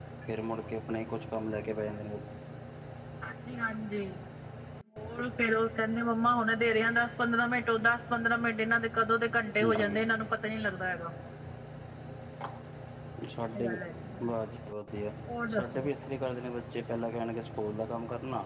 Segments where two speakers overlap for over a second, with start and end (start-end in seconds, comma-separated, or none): none